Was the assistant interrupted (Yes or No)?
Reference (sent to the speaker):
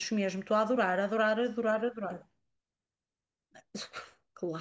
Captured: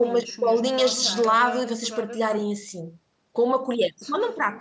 Yes